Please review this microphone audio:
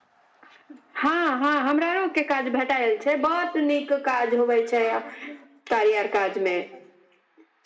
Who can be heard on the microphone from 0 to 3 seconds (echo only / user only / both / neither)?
echo only